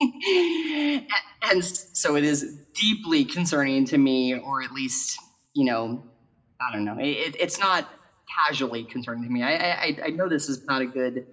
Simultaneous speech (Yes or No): No